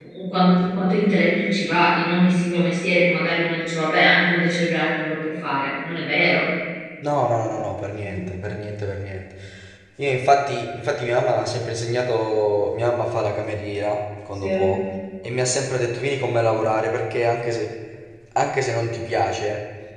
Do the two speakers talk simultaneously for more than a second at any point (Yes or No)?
No